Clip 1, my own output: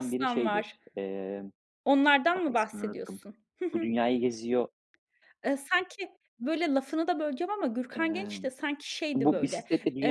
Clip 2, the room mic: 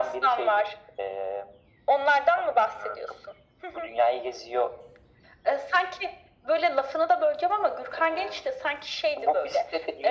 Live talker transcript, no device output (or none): none